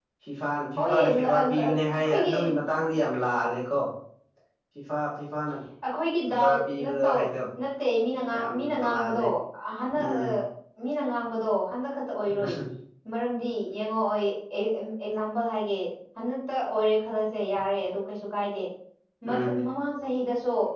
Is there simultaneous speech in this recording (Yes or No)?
Yes